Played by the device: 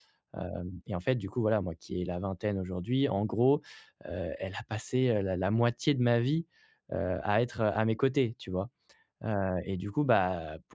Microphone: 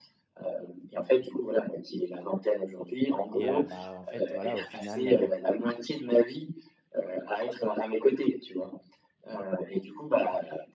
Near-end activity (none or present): present